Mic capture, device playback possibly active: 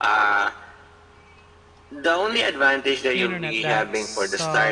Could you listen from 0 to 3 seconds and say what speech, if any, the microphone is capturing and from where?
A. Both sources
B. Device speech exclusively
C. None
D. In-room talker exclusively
B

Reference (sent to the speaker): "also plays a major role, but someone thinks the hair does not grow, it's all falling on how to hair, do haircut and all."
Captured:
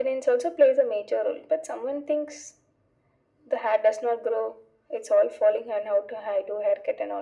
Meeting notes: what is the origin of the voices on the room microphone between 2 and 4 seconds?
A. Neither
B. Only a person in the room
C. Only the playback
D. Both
C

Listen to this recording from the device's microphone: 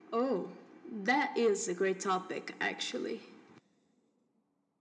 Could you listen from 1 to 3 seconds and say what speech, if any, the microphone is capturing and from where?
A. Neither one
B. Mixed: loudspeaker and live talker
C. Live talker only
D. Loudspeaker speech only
D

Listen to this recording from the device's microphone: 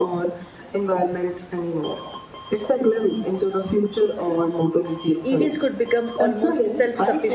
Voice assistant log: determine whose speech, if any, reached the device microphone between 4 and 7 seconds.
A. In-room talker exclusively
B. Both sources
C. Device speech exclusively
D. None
B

